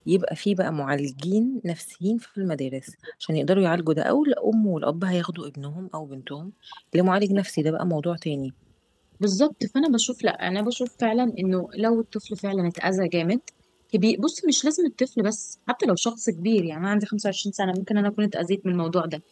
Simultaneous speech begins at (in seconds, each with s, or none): none